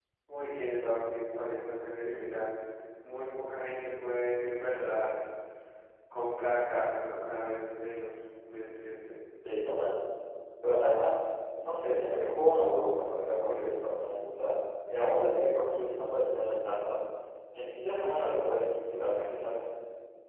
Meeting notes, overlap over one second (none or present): none